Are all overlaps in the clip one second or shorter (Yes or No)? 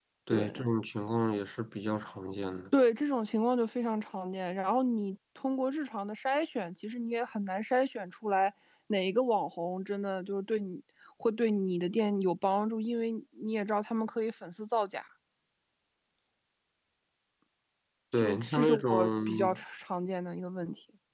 No